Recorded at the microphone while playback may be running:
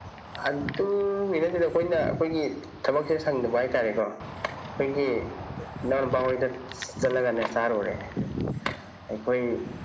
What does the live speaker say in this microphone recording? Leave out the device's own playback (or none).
none